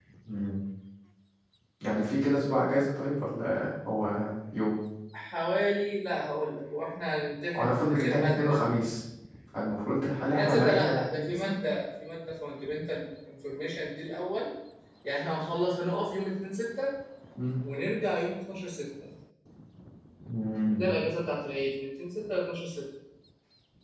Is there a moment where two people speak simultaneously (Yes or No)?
Yes